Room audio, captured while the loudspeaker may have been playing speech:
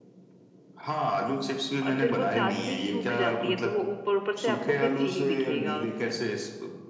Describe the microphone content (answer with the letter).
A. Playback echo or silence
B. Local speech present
B